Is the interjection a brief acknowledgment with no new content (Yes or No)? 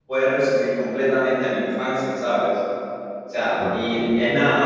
Yes